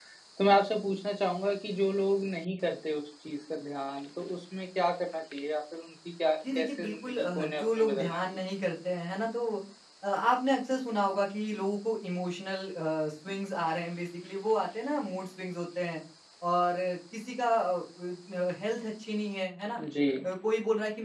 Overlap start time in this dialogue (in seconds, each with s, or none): 6.4 s